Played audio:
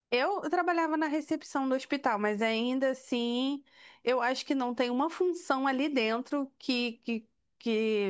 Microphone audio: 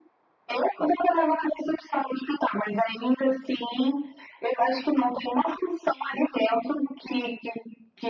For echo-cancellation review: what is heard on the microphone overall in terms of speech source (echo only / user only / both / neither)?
echo only